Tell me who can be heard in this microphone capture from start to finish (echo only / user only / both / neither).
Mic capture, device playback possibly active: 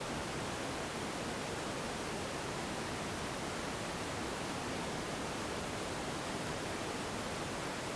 neither